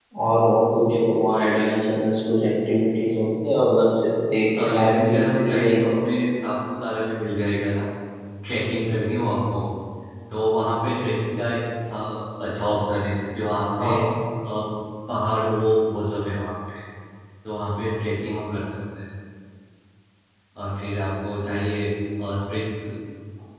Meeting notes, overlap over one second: present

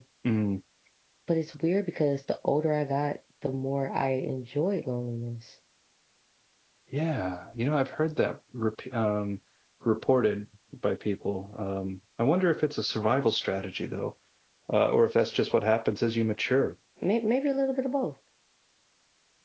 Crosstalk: none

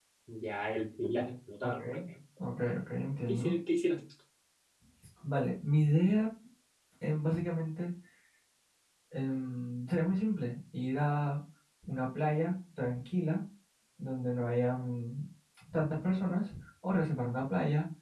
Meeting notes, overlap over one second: none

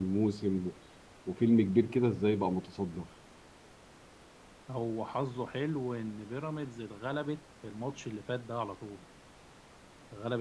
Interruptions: none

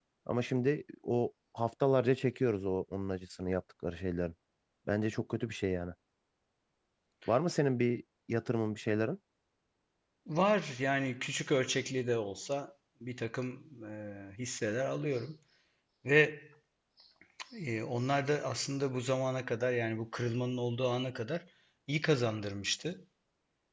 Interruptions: none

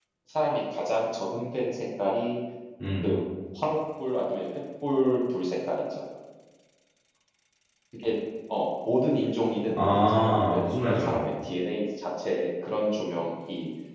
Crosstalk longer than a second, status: present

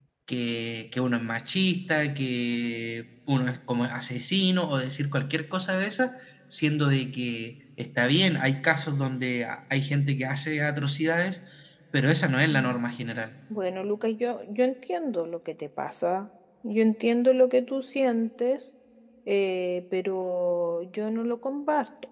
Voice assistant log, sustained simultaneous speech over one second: none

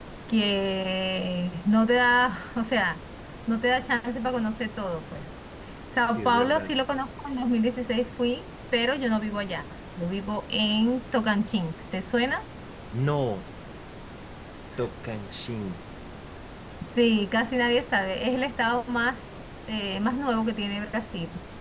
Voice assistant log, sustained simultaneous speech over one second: none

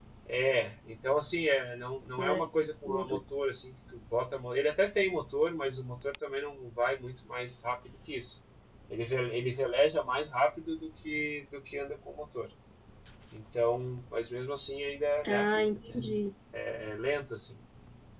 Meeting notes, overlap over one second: none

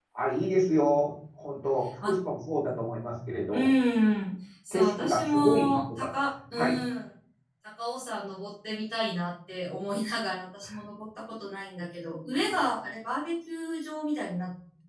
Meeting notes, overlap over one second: present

